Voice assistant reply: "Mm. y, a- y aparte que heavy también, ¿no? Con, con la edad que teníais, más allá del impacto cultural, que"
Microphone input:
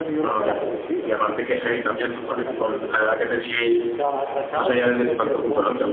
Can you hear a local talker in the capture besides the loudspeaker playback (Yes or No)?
Yes